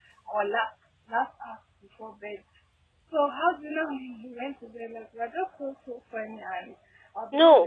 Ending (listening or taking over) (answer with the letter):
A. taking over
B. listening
A